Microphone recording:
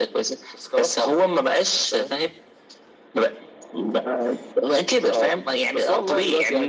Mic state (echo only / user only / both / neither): echo only